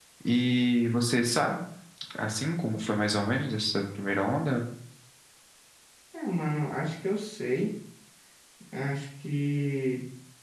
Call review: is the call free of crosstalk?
Yes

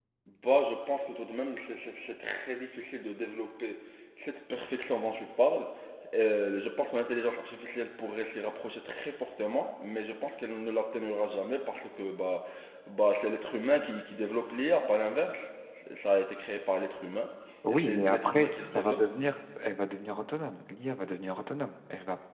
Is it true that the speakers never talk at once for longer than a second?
No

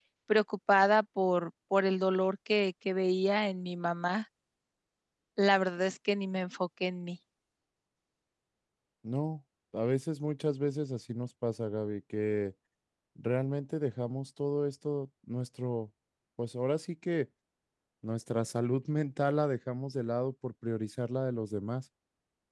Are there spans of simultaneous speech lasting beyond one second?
No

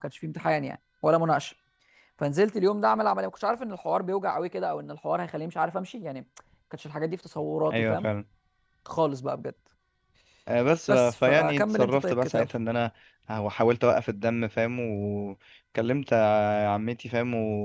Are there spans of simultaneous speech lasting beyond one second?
Yes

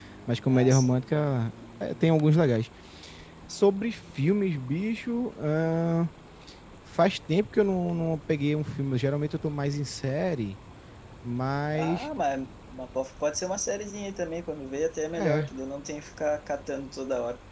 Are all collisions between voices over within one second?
Yes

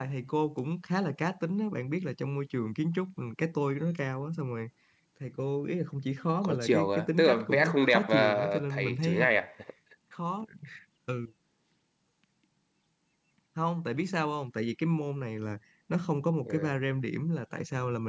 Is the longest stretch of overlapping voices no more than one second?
No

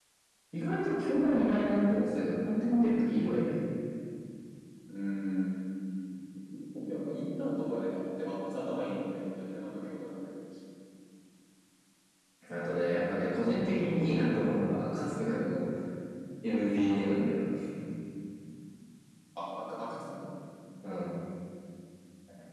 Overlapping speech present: No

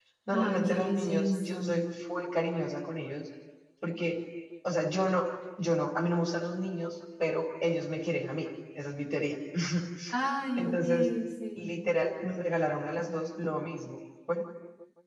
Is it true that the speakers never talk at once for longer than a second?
No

